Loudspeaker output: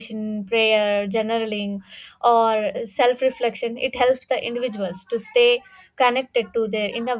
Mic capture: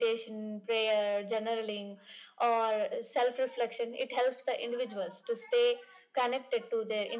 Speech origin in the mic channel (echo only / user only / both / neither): echo only